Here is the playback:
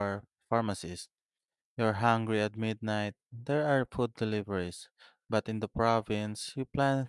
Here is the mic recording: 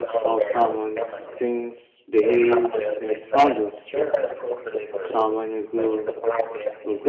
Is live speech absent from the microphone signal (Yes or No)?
No